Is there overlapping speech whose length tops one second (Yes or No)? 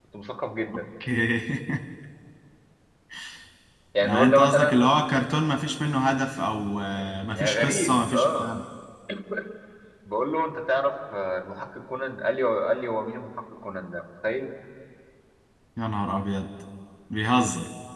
Yes